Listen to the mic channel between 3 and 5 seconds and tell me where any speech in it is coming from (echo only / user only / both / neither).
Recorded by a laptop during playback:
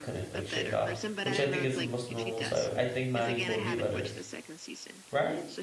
both